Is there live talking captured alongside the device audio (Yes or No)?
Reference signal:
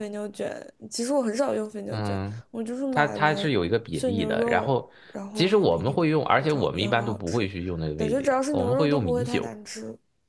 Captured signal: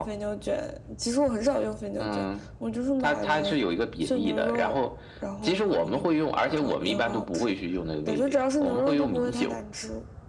No